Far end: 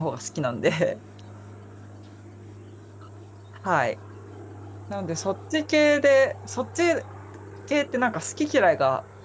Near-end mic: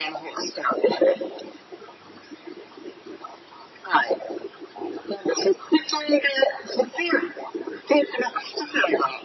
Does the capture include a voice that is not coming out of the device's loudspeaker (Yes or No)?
No